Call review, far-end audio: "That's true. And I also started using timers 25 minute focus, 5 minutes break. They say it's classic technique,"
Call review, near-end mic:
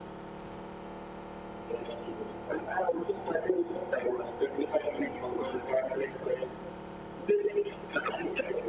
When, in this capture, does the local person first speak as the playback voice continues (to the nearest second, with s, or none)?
none